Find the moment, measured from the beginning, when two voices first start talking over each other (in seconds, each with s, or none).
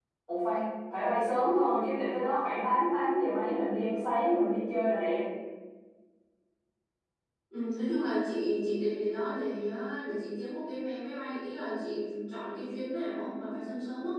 none